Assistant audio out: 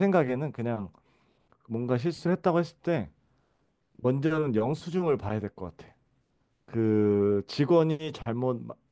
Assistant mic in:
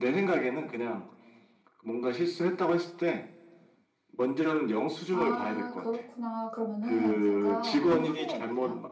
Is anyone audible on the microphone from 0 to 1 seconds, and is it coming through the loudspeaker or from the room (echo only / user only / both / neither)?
echo only